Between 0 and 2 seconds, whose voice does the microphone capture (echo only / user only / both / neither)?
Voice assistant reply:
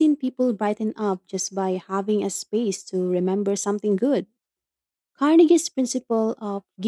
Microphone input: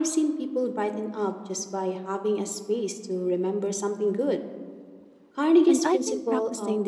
echo only